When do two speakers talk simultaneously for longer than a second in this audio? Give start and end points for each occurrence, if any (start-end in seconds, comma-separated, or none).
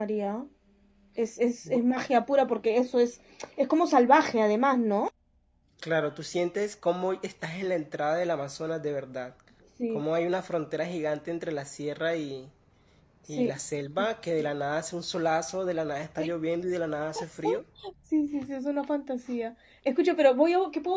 none